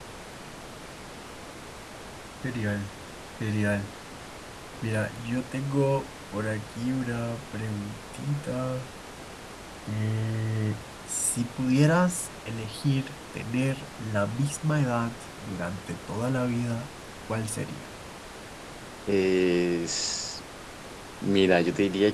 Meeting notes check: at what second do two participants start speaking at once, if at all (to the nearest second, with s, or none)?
none